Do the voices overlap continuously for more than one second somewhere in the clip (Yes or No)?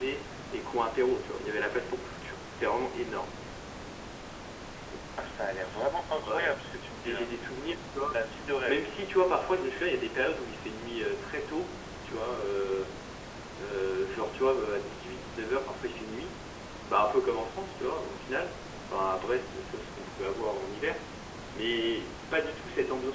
No